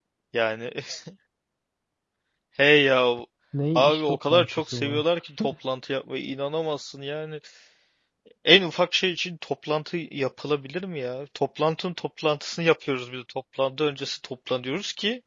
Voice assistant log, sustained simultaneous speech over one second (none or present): present